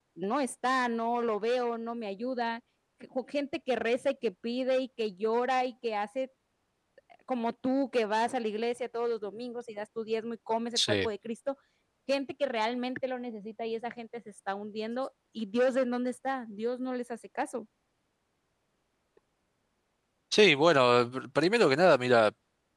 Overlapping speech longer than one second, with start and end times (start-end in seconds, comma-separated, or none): none